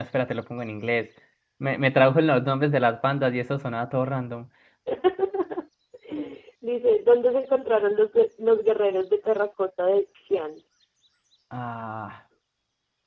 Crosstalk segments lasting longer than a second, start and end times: none

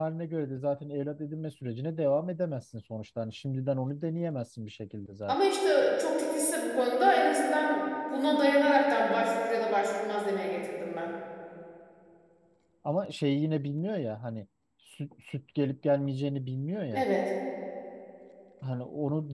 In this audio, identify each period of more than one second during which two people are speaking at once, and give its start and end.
none

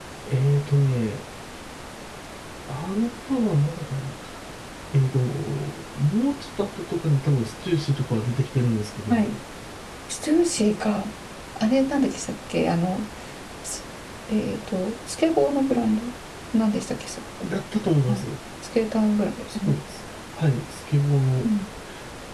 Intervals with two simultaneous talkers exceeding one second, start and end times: none

